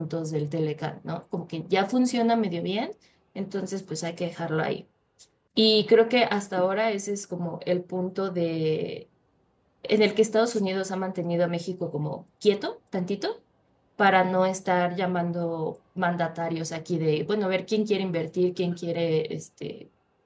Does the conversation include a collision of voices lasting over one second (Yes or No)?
No